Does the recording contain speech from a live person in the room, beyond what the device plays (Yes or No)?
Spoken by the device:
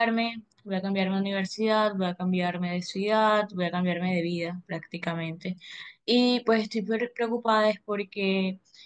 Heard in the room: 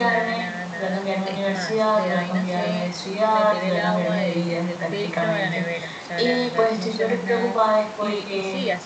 Yes